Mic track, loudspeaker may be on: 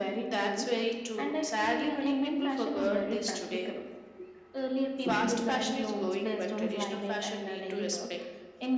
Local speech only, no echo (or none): none